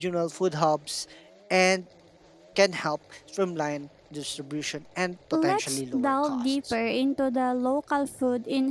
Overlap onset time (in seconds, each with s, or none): 5.3 s